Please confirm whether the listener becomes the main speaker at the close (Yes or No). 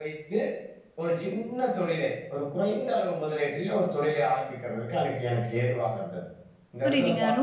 Yes